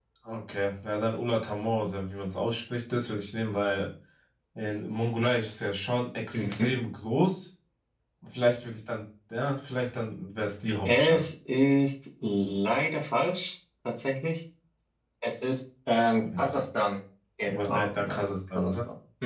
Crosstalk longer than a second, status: present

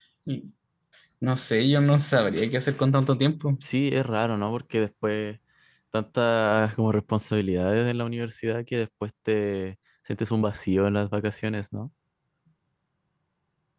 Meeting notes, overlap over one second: none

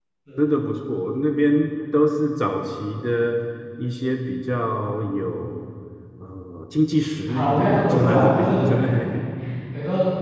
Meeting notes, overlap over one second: present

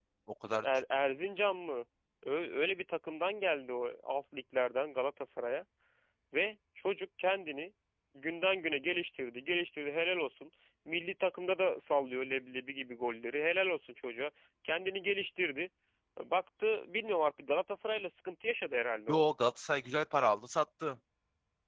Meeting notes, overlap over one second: none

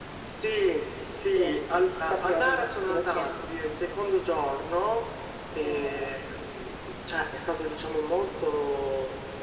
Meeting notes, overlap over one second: present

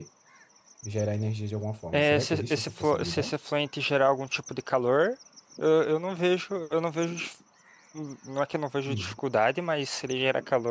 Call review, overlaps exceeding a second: present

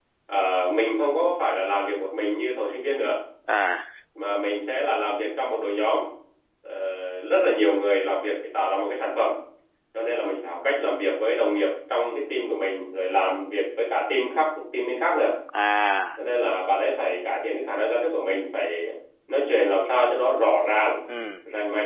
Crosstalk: none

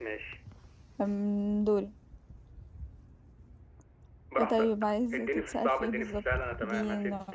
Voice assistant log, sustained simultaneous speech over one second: present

